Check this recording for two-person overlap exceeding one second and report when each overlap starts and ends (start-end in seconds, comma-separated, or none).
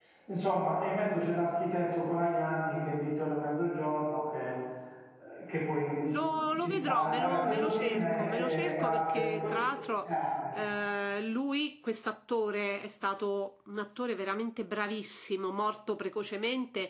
6.1-9.3